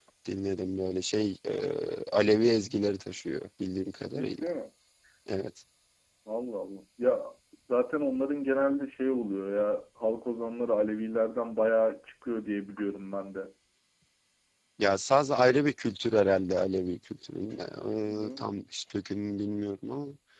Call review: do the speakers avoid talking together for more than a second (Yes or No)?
Yes